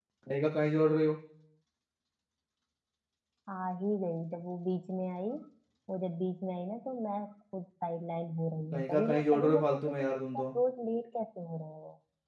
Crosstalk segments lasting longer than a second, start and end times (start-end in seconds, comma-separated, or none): 8.7-10.4